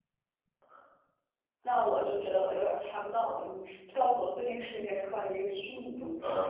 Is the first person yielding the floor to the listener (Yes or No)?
Yes